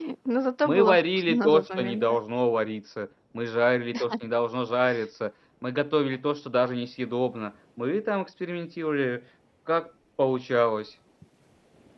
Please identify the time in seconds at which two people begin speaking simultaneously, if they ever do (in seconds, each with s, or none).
0.6 s